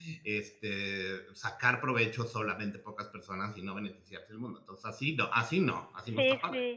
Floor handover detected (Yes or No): Yes